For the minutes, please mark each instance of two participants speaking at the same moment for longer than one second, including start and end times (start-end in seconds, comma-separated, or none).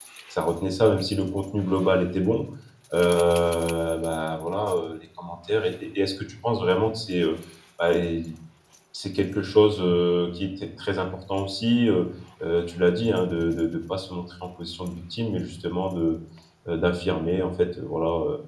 none